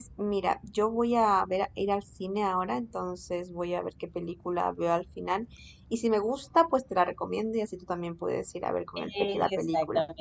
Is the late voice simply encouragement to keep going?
No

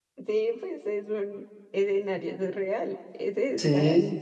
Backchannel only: No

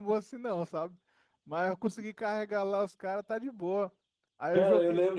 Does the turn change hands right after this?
Yes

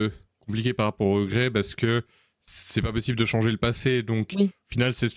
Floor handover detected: No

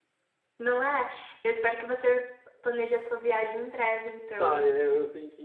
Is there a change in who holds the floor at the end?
Yes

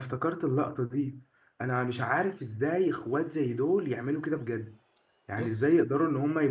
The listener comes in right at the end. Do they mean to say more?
No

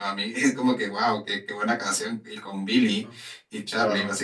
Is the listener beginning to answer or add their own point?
No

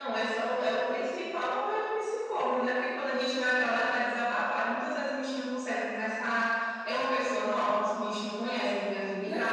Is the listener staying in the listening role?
No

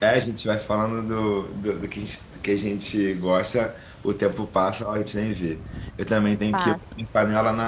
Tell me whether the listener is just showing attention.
Yes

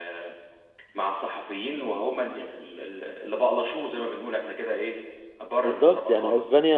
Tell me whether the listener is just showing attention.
No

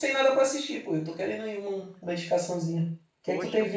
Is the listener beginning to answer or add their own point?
Yes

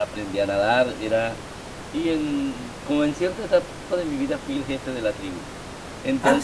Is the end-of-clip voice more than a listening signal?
No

